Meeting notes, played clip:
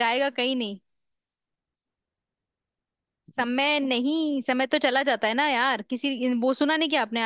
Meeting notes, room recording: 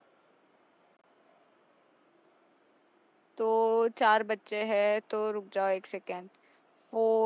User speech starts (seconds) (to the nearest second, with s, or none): 3 s